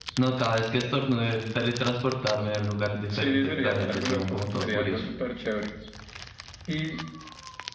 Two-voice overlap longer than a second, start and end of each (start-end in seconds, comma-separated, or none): 3.1-5.0